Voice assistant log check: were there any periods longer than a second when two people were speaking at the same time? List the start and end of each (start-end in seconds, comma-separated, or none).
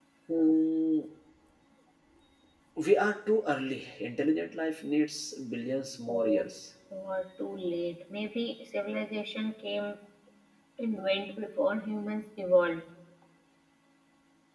none